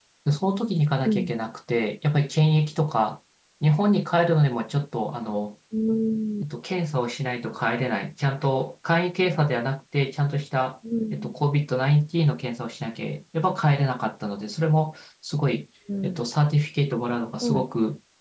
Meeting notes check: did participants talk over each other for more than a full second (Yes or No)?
No